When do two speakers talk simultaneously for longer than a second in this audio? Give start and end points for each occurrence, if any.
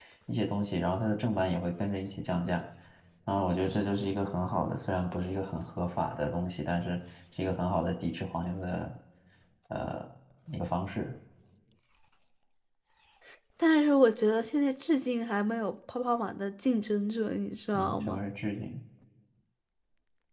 none

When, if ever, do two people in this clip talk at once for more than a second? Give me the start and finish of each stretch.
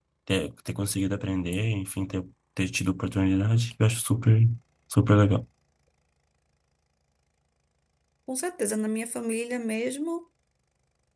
none

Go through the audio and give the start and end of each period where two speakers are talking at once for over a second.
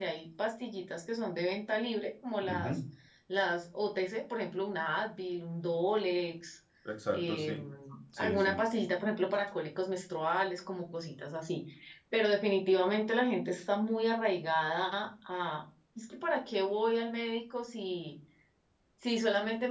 none

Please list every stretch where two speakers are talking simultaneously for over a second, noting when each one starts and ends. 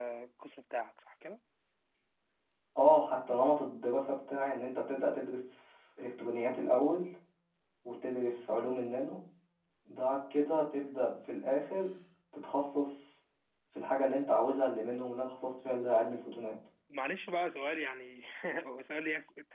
none

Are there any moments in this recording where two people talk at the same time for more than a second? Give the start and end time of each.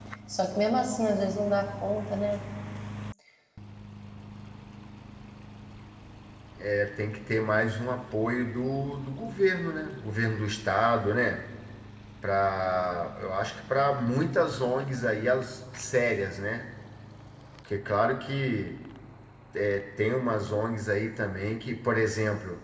none

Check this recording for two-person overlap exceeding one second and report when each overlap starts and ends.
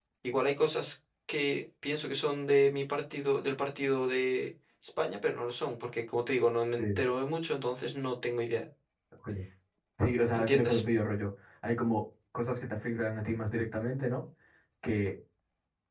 none

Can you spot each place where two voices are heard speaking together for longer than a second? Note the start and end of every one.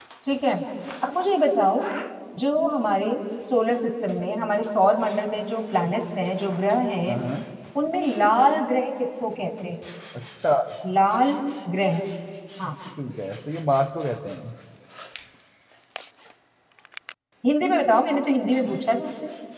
none

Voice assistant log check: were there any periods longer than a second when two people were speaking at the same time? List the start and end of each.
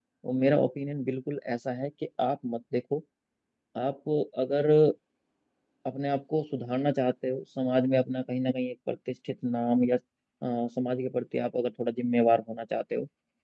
none

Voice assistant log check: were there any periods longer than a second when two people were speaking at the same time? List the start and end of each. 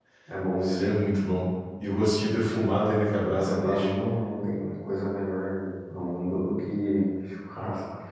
none

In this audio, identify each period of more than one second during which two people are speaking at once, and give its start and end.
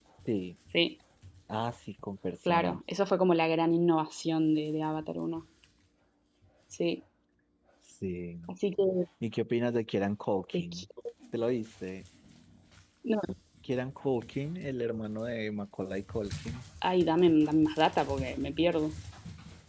none

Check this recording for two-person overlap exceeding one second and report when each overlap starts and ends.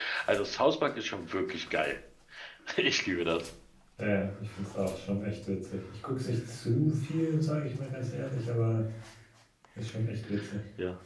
none

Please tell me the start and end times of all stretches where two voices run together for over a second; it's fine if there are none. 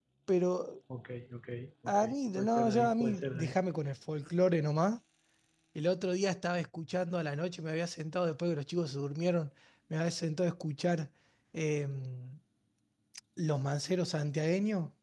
1.9-3.5

